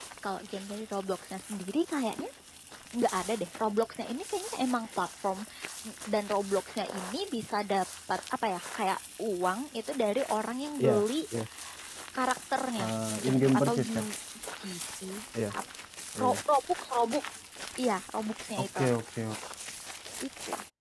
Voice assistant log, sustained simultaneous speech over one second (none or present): present